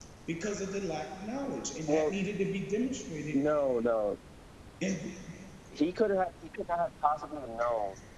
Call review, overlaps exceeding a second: none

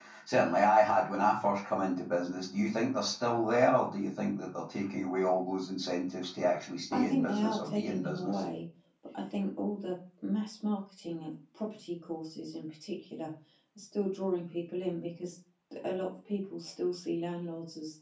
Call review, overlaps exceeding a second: present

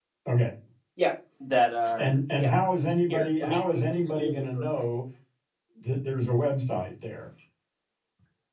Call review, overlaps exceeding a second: present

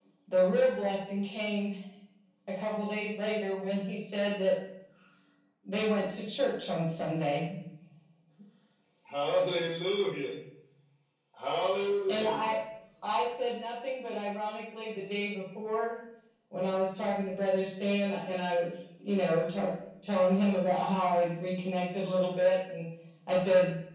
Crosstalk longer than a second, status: none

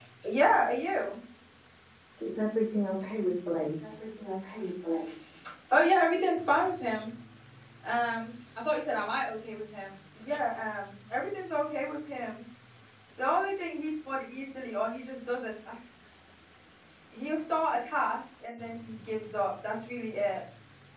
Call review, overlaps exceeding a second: none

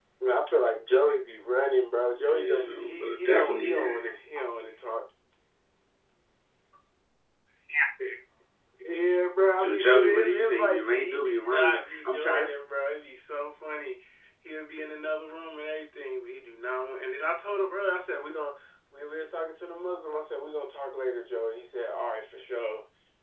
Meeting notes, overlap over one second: present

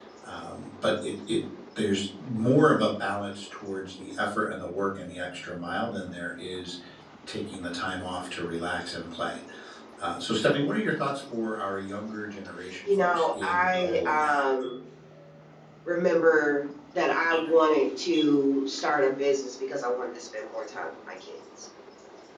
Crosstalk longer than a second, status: present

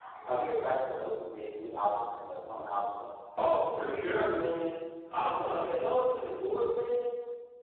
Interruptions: none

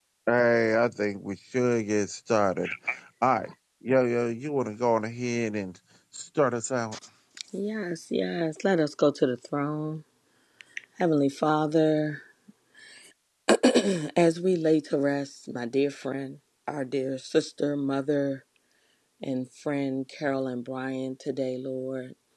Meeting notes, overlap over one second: none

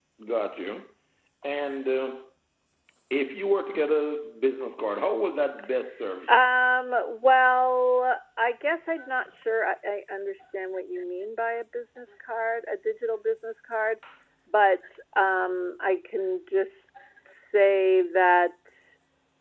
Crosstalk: none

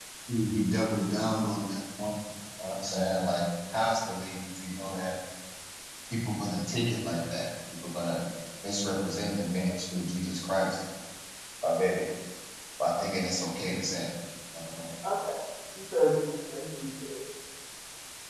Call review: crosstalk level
none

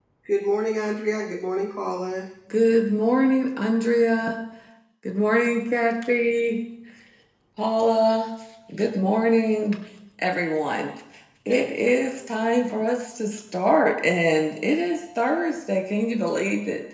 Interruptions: none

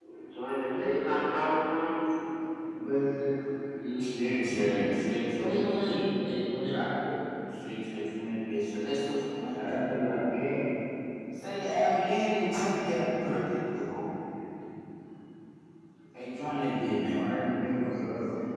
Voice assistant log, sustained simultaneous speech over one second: none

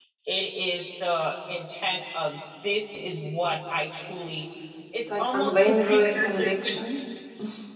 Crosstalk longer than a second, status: present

